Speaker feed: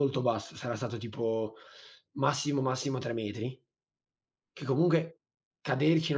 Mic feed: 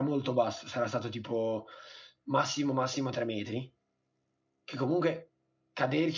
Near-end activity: none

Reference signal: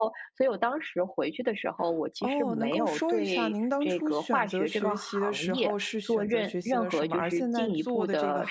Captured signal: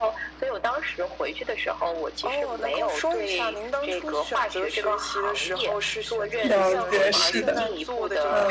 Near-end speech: present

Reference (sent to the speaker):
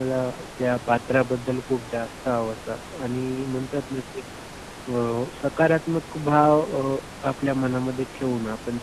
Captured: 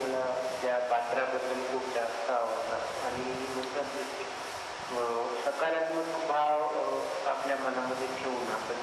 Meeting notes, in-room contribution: none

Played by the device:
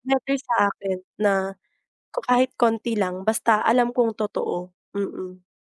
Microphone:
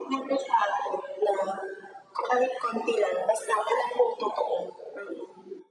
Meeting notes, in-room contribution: none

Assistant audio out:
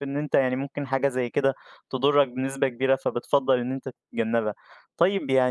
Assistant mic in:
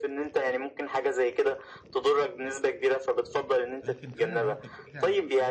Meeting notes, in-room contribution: present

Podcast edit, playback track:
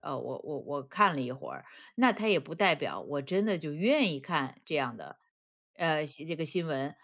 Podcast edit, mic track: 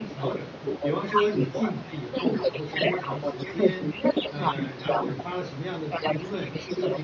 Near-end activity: present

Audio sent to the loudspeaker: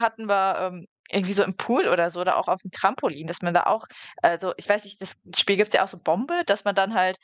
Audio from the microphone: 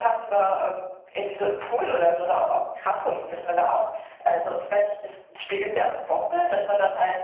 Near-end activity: none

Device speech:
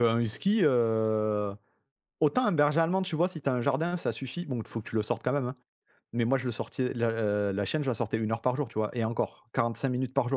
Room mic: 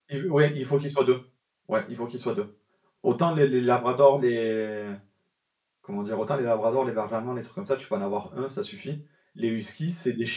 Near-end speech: present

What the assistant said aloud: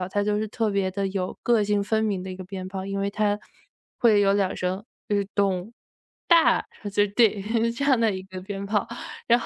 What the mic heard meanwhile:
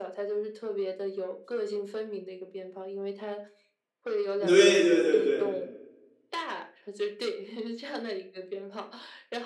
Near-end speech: present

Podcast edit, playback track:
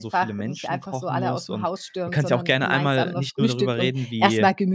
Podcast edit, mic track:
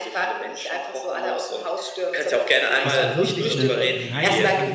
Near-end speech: present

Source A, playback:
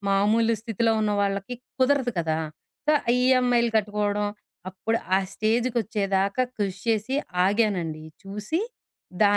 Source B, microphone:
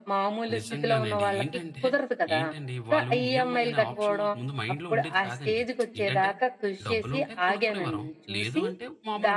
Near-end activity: present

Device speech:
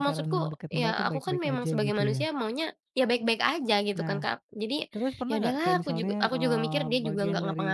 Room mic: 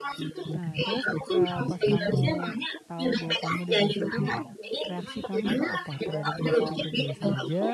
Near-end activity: present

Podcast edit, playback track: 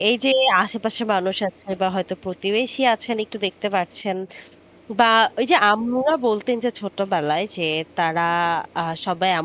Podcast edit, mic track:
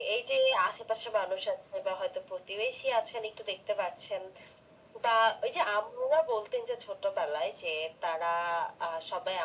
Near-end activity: none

